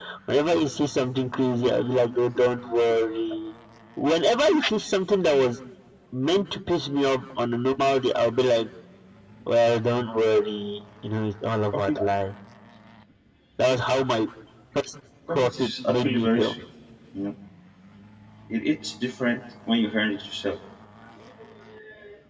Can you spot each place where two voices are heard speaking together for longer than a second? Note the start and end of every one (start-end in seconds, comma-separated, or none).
15.3-16.5